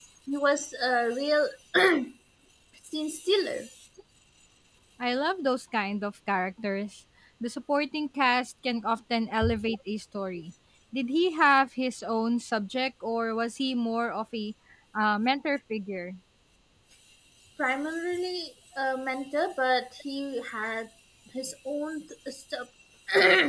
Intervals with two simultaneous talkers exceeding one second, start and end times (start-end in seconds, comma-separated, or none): none